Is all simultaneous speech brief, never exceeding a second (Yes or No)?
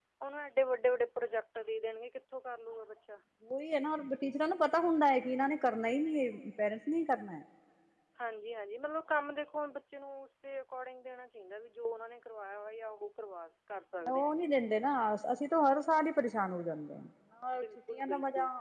Yes